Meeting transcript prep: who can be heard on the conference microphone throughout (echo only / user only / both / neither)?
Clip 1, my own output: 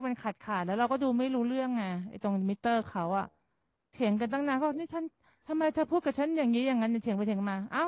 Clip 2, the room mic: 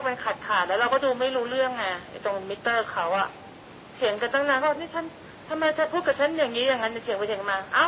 echo only